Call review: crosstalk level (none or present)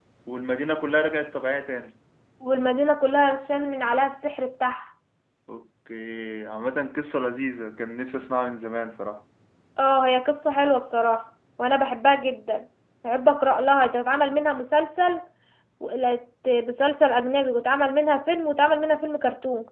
none